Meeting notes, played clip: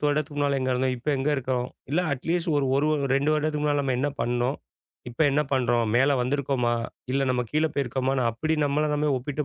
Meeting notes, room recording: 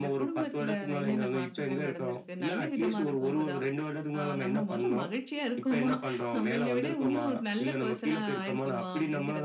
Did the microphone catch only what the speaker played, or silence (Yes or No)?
No